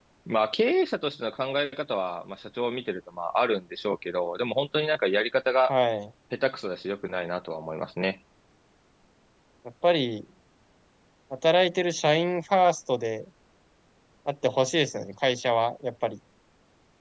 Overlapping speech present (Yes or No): No